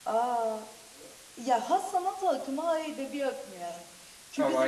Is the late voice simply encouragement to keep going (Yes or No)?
Yes